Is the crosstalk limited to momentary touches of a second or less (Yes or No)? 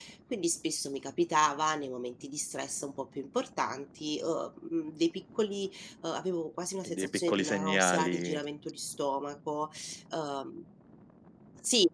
No